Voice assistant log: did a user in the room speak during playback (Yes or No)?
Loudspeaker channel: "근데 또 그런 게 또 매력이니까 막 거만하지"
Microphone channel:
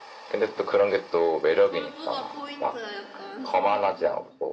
Yes